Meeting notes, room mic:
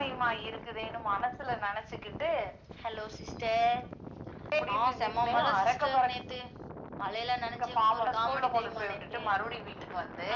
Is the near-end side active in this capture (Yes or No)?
No